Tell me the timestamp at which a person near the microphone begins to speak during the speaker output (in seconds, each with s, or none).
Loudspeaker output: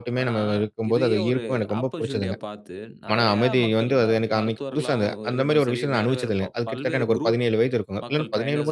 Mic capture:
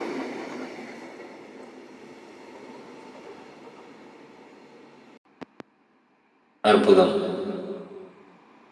6.7 s